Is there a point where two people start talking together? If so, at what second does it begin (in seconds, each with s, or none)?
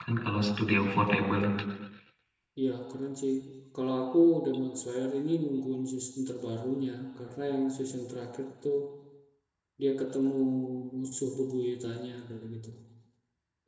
none